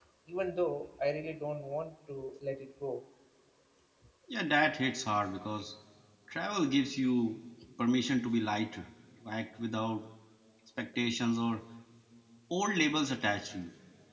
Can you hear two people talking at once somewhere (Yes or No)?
No